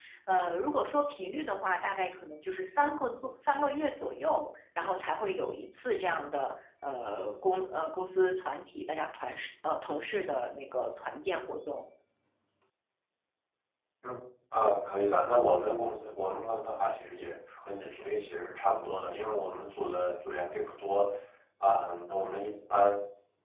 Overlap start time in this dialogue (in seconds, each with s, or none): none